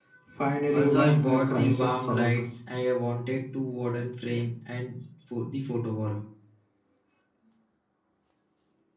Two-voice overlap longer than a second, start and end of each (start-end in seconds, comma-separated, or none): 0.7-2.4